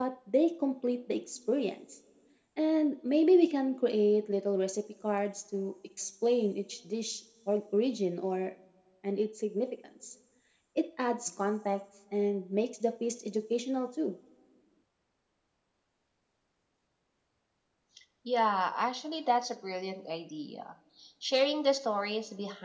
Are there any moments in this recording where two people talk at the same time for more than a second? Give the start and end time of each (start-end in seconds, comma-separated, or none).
none